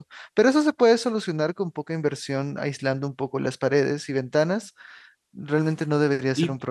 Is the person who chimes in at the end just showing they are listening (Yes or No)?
No